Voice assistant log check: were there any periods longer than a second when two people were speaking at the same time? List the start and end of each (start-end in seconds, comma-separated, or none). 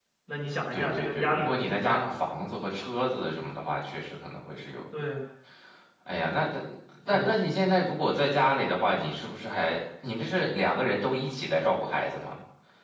0.7-2.1